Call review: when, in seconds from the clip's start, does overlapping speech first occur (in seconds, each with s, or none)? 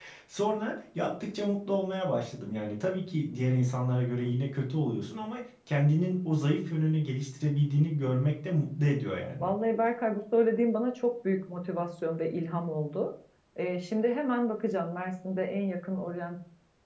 none